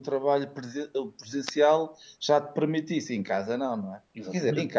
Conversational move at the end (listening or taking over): listening